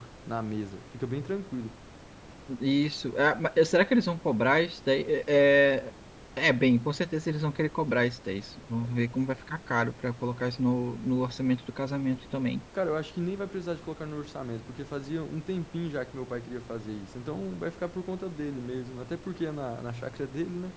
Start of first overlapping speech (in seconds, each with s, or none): none